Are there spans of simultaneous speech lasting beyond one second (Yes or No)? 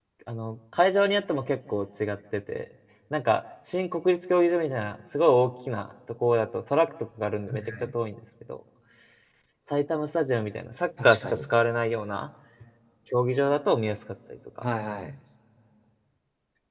No